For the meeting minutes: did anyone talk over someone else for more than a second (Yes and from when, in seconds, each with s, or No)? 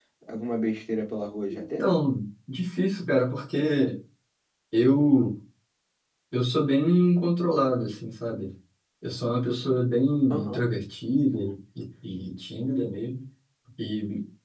No